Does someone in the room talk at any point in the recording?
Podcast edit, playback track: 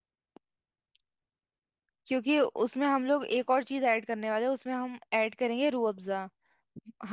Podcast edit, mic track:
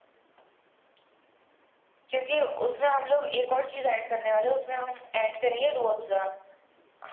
No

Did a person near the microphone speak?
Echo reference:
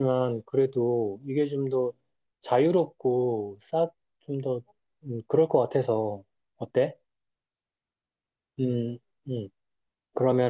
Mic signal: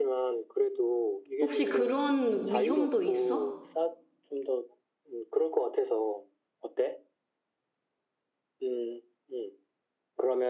Yes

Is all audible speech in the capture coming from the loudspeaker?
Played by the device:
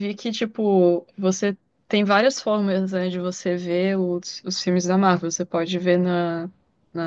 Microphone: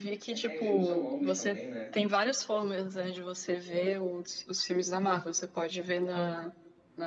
No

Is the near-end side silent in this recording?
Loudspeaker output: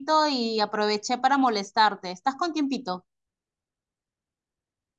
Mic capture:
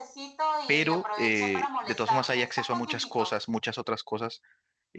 No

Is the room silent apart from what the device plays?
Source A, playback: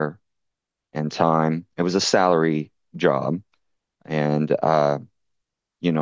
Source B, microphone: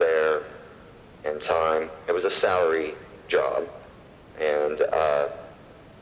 Yes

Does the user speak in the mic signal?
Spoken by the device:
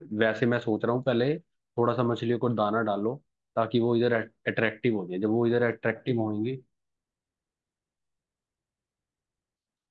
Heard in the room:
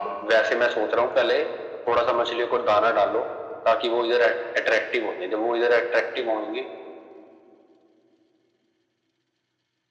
No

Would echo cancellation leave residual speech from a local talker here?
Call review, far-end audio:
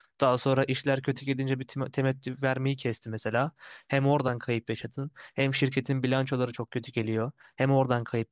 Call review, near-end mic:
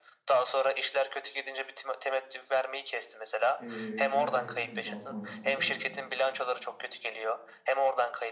Yes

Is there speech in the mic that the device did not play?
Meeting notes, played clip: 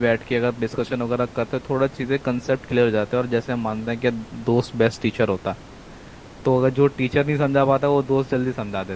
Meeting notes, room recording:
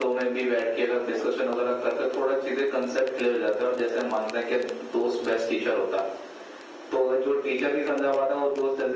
No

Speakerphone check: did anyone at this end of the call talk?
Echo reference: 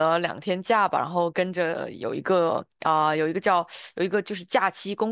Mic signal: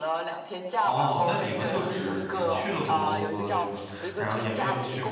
Yes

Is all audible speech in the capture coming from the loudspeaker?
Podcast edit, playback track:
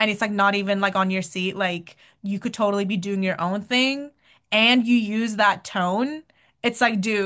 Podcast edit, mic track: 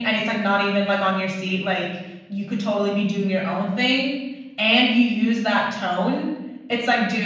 Yes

